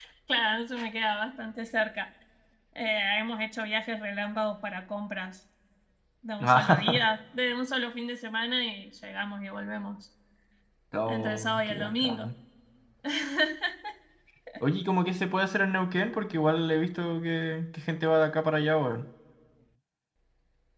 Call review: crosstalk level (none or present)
present